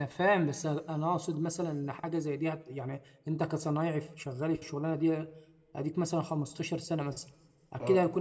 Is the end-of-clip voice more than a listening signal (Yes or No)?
No